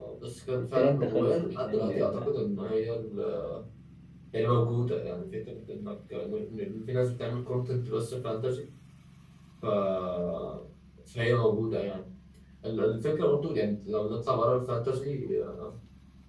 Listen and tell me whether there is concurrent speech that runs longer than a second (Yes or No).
Yes